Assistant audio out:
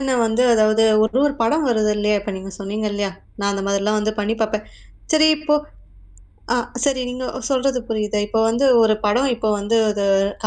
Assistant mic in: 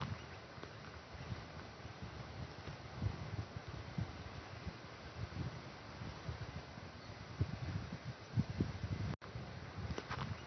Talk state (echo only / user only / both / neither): neither